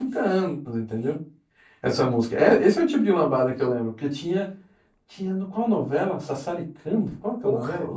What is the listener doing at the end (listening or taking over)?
listening